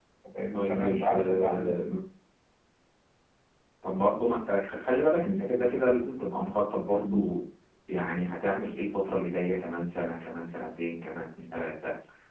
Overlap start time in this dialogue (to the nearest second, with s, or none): 1 s